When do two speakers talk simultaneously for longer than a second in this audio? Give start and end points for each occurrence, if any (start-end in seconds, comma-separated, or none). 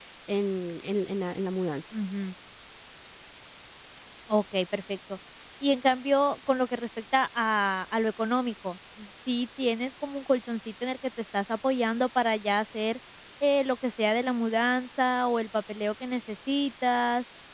none